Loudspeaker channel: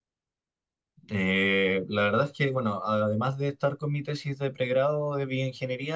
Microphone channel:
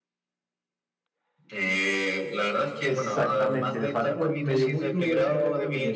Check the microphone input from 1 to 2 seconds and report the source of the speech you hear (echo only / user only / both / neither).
echo only